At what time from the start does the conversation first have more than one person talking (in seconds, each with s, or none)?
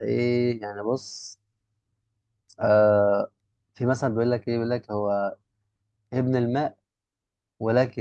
none